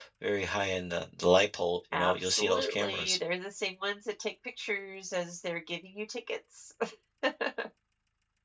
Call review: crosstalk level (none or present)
present